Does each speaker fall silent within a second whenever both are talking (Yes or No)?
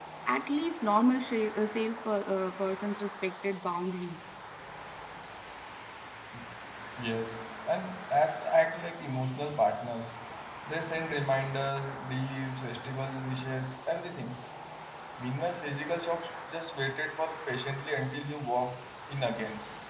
Yes